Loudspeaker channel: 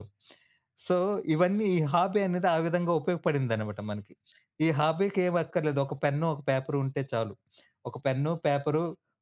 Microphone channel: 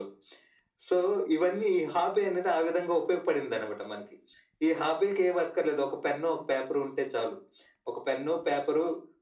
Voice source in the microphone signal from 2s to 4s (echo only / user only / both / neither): echo only